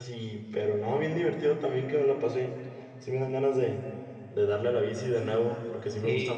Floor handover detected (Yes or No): Yes